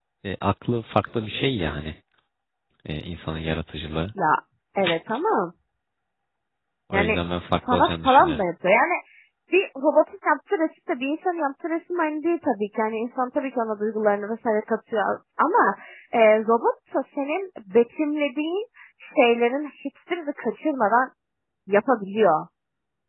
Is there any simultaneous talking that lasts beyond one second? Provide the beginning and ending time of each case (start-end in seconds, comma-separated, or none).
6.9-8.4